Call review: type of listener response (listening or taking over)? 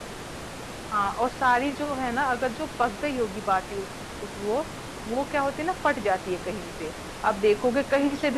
listening